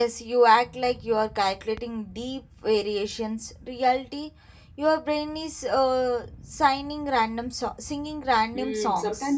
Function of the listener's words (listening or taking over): taking over